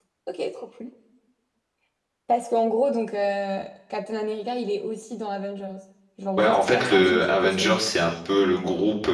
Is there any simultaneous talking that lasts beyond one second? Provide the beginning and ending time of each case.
6.4-7.9

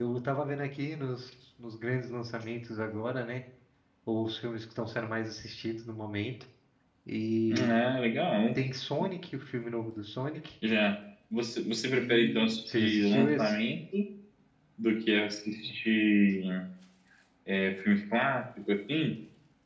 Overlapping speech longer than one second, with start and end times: 11.9-13.6

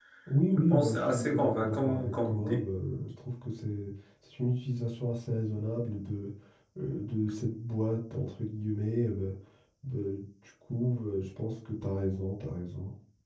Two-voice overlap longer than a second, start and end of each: 0.7-2.6

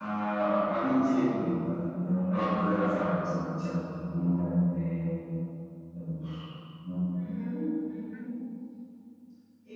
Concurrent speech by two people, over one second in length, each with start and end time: none

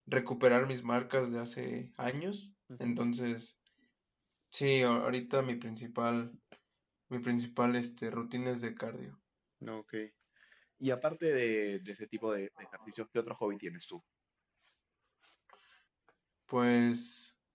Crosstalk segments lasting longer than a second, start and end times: none

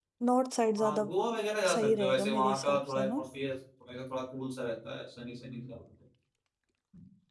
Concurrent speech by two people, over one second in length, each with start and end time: 1.7-3.2

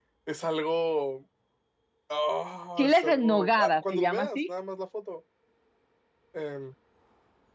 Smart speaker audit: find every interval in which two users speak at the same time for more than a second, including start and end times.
2.8-4.5

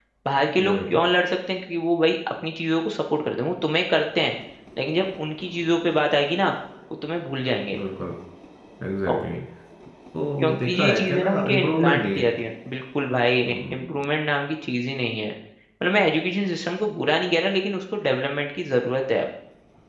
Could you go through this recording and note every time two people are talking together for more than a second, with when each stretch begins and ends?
10.4-12.3

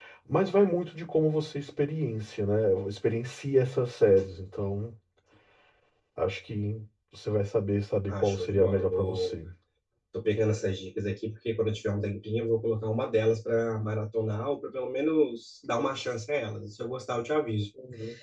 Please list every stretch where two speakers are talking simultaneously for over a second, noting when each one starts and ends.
8.1-9.4

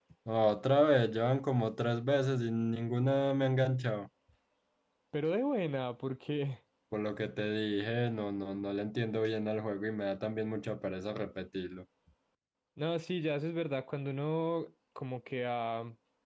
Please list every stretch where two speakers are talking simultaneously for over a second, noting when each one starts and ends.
none

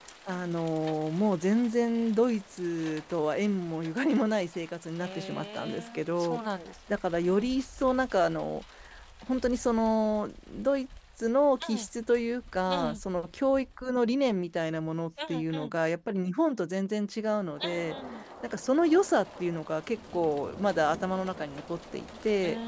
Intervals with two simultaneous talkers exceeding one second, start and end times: 5.0-6.4

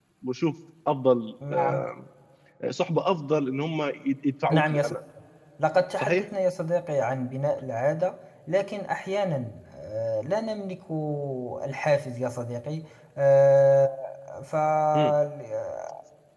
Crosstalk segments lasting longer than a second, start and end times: none

